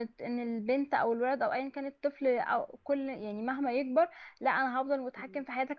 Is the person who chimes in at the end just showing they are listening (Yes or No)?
Yes